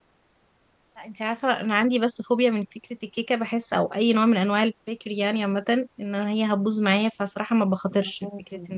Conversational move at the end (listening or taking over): listening